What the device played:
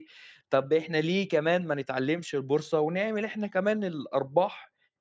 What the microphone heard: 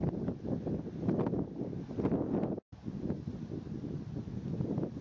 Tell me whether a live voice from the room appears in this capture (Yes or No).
No